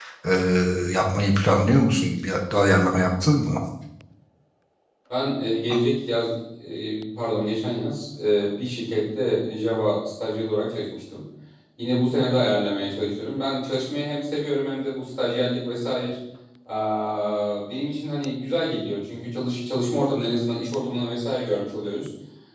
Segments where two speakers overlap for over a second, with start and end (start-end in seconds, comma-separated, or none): none